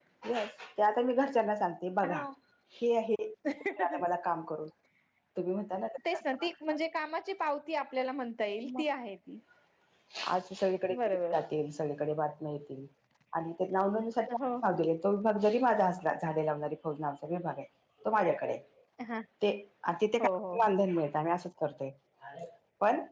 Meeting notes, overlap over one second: none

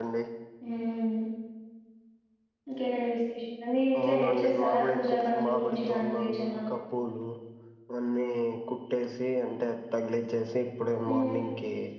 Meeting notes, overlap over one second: present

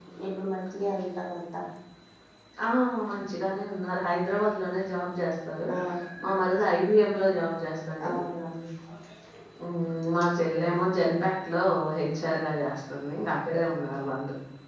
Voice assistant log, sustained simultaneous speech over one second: none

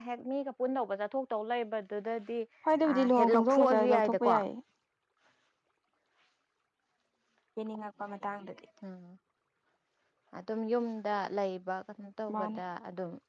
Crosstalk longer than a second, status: present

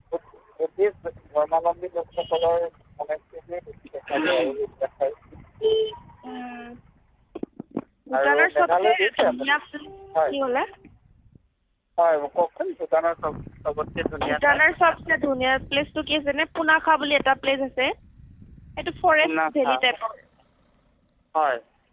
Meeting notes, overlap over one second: present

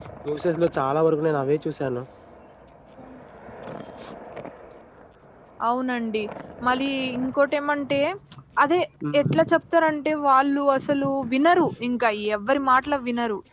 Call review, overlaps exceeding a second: none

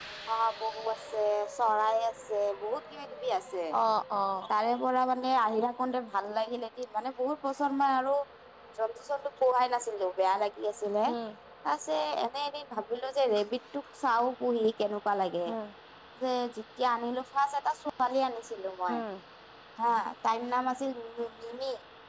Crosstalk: none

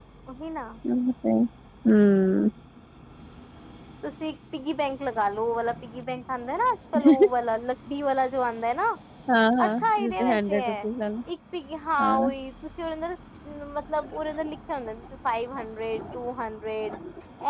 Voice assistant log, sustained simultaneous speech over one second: present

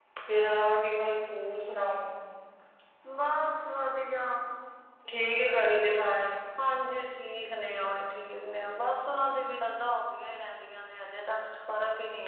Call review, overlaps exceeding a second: none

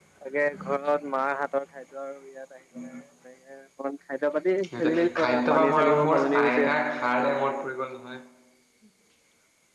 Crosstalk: present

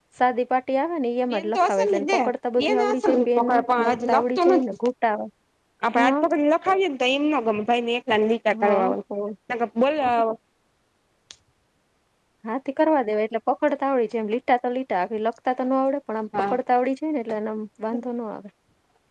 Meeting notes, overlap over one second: present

